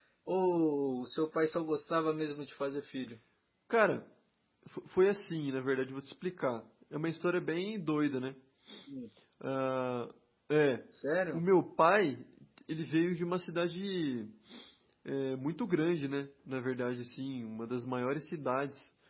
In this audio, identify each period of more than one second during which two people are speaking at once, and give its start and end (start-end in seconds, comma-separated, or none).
none